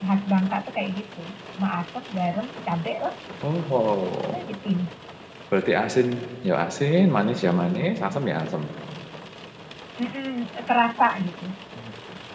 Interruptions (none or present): none